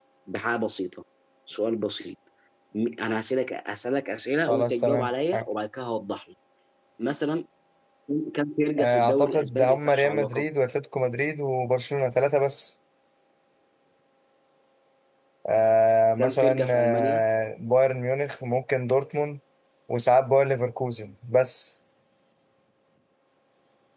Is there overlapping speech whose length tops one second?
Yes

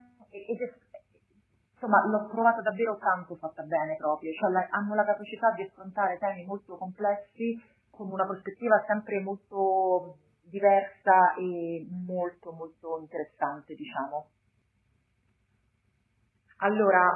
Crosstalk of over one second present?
No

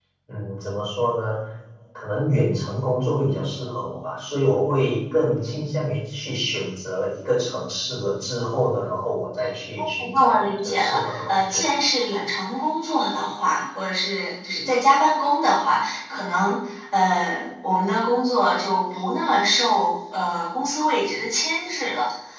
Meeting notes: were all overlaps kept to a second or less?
No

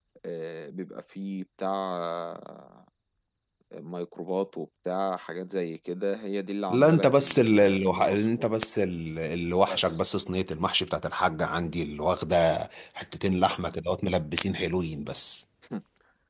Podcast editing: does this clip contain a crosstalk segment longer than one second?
Yes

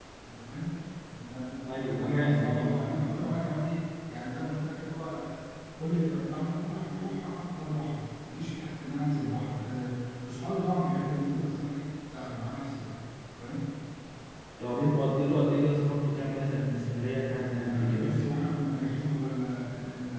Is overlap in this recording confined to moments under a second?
No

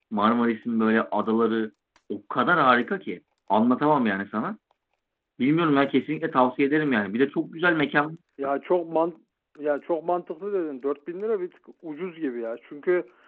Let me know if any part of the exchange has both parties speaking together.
No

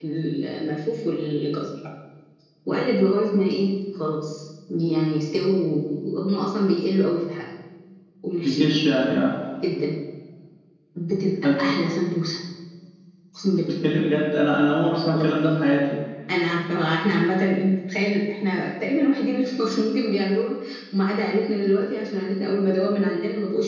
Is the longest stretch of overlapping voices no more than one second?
Yes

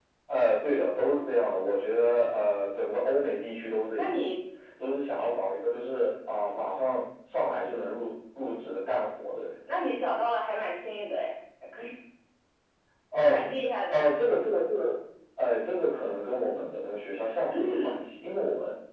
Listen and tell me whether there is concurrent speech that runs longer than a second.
No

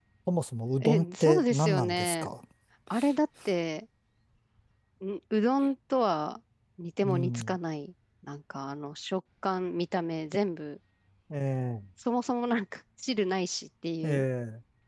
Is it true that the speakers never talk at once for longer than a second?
No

